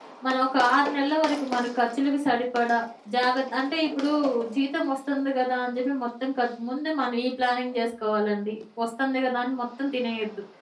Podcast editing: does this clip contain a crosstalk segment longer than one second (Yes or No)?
No